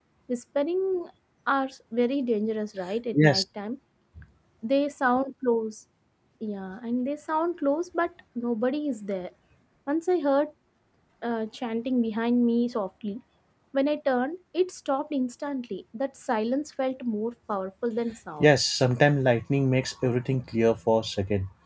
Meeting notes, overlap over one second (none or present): none